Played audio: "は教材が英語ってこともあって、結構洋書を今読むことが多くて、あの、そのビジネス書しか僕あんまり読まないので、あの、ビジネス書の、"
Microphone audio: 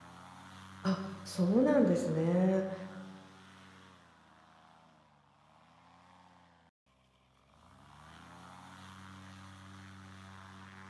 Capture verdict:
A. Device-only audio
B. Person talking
B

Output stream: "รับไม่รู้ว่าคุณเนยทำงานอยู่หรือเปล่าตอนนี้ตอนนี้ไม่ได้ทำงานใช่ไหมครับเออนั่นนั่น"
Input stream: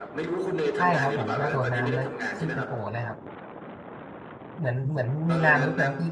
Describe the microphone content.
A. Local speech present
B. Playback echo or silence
A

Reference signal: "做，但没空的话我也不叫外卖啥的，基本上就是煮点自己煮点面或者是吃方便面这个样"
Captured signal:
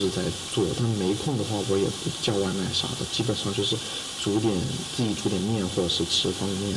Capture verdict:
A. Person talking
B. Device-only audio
B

